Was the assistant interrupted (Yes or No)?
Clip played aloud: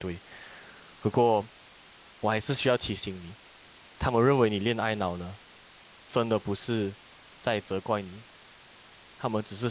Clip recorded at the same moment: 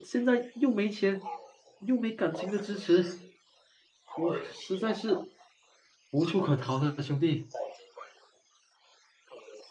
Yes